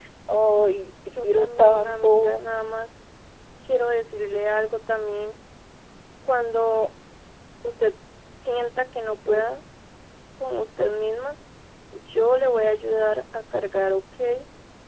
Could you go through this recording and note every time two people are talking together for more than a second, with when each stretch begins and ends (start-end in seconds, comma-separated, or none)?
1.2-2.4